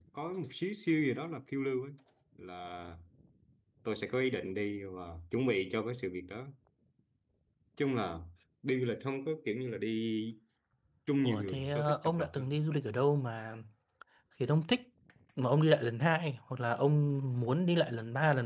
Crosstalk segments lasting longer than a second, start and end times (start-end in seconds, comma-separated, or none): 11.2-12.6